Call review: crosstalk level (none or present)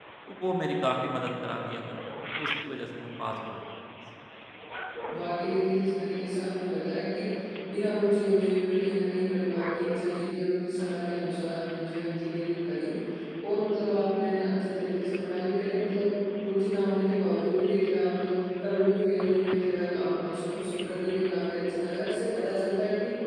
none